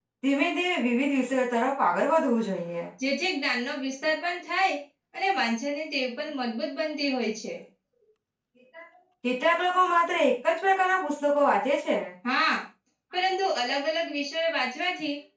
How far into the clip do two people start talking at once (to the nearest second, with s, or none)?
none